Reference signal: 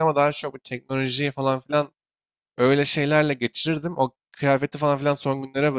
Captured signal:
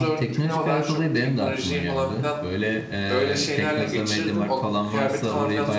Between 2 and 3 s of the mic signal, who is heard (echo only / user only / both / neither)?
both